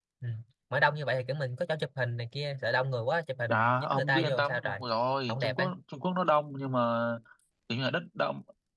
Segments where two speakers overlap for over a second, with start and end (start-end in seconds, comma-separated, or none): 3.5-4.8